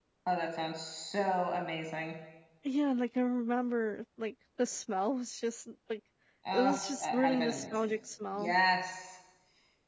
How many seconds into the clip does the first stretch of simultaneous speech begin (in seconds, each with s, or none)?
6.5 s